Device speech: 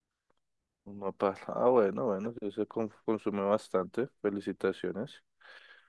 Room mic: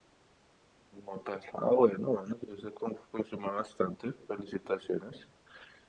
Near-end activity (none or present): none